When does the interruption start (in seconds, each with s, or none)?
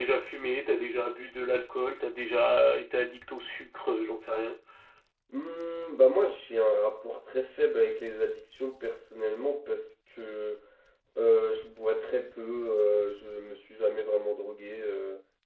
none